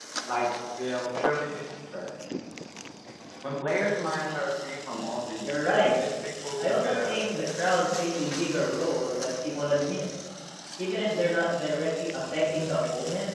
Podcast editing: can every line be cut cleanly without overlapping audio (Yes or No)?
No